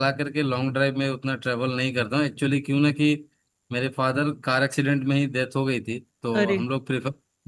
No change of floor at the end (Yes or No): Yes